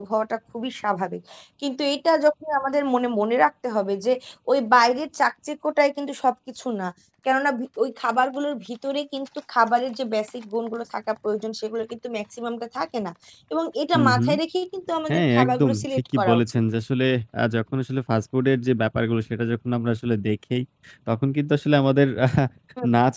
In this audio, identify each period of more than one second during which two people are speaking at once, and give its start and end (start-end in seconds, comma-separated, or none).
15.1-16.6